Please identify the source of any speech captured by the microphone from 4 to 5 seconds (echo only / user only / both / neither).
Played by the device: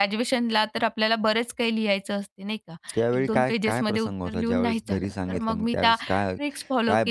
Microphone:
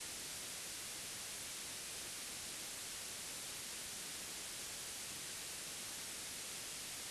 neither